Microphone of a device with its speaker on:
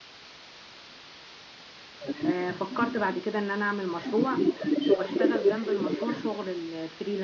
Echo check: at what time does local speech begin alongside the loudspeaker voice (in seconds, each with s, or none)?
2.2 s